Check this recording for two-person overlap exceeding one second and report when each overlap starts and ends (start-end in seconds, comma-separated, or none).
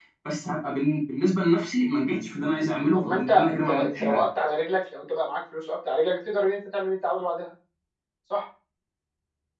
2.9-4.2